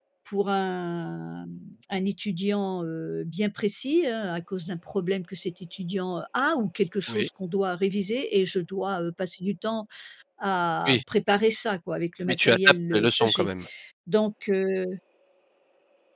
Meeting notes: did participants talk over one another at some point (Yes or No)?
Yes